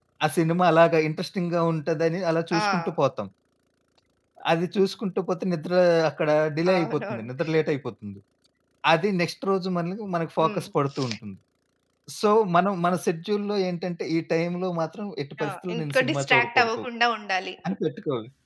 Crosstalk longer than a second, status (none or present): present